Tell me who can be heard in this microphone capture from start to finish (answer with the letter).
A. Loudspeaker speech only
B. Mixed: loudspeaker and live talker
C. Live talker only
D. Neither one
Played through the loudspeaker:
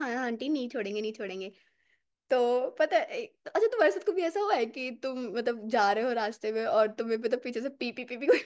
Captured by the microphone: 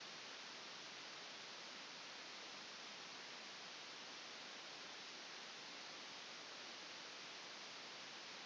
D